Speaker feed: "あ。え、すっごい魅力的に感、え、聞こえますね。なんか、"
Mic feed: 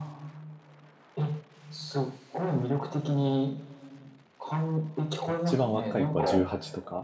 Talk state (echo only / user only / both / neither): both